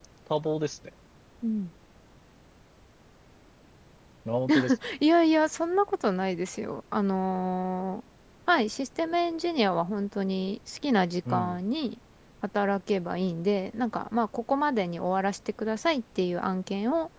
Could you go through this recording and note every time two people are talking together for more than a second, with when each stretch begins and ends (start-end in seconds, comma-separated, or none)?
none